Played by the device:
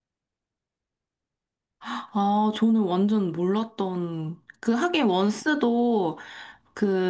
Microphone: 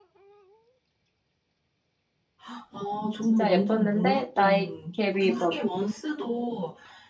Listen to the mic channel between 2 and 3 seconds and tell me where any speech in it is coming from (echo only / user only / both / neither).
echo only